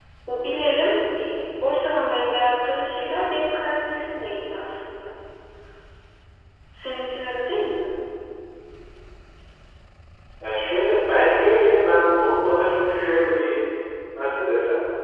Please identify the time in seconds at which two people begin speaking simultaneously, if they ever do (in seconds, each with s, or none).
none